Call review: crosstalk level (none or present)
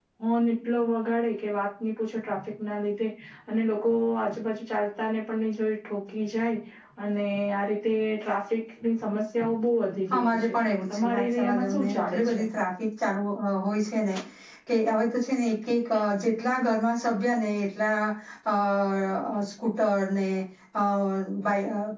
present